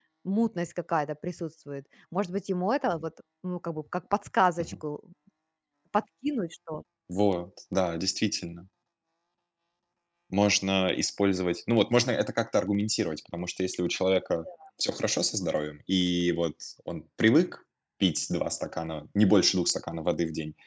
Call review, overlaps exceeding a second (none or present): none